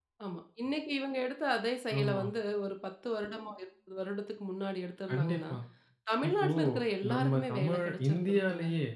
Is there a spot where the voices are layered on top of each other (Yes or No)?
Yes